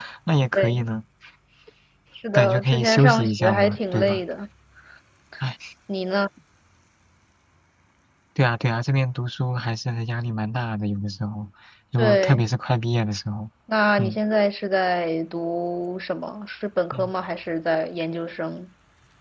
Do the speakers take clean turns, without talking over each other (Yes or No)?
No